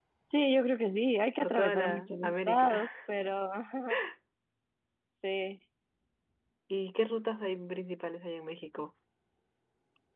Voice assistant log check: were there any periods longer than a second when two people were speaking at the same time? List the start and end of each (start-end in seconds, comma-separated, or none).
1.4-2.9